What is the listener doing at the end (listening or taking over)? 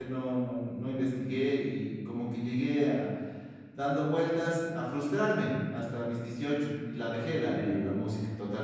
listening